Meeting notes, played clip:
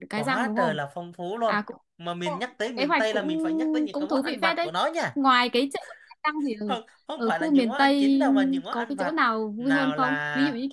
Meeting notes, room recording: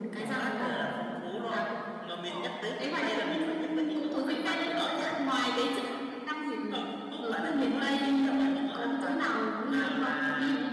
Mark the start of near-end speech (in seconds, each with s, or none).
none